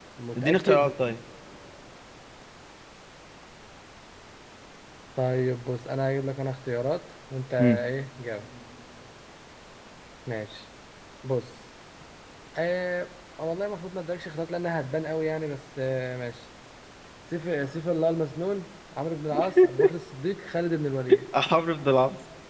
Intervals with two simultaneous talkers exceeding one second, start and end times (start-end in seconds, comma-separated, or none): none